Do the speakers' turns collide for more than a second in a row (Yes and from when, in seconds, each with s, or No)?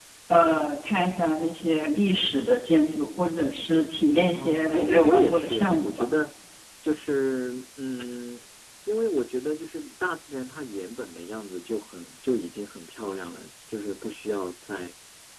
Yes, from 4.3 s